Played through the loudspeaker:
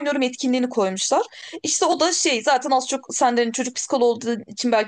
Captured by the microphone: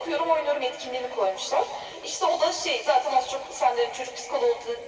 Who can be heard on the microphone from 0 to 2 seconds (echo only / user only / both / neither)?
echo only